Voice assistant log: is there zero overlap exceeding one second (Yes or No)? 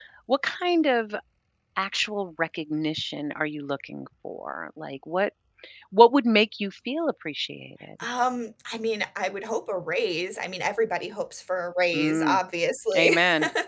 Yes